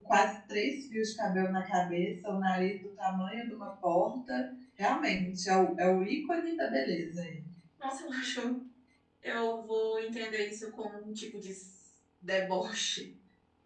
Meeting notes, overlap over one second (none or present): none